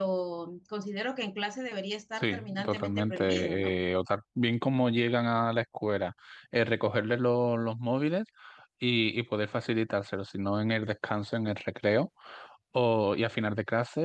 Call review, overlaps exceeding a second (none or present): present